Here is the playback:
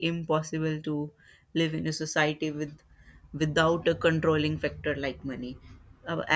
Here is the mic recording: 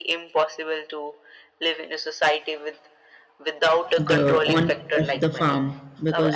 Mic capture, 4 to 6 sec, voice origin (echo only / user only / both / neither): both